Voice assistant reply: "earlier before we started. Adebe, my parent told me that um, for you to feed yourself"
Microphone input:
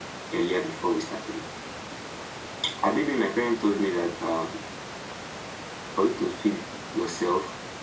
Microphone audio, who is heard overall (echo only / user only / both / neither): echo only